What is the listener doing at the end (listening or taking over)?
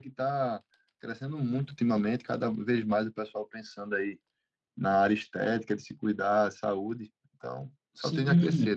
taking over